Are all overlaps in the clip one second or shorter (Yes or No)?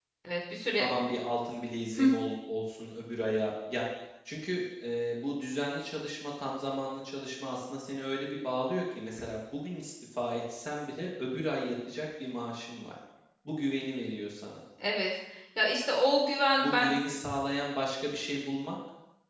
Yes